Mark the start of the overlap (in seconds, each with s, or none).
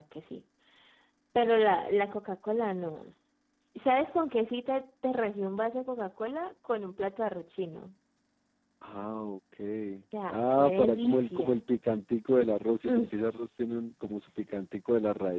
10.3 s